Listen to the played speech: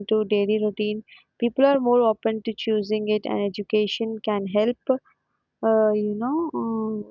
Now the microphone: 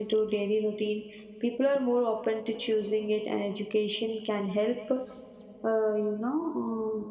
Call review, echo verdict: present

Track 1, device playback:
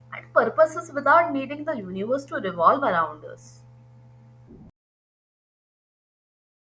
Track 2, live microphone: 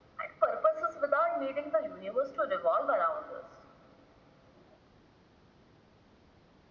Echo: present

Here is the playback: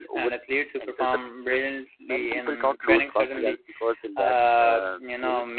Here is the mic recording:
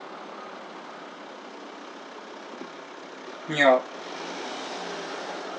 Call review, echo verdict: none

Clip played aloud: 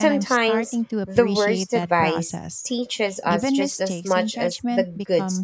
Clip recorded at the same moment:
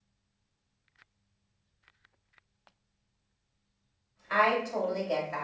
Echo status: none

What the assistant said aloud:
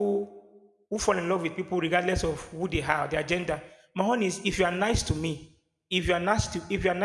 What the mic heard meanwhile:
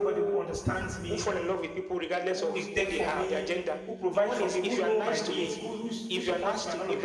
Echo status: present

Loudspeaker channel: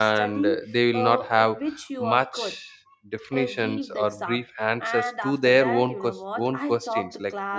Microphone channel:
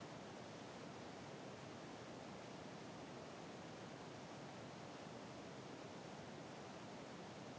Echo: none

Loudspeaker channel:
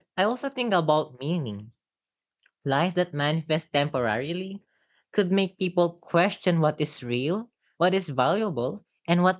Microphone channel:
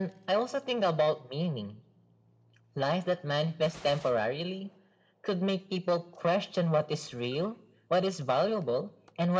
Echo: present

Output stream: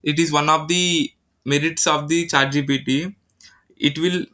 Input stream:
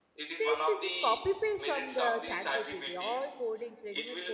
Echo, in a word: present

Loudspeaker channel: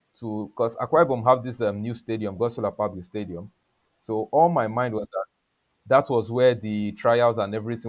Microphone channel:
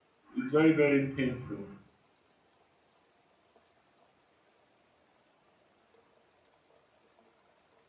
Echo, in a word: none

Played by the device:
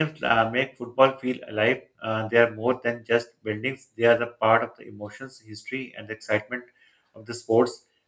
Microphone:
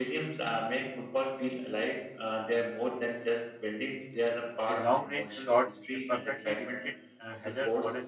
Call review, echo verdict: present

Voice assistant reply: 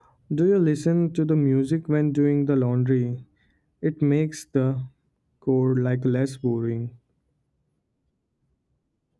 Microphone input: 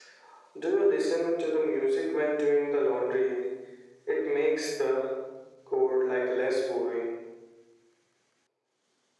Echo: present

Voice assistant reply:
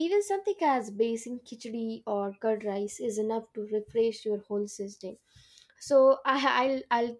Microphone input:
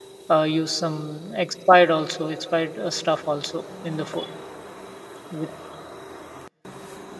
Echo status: none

